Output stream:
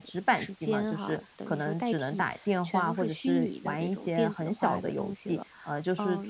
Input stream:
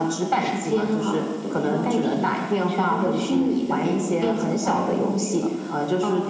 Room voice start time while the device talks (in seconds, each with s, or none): 1.7 s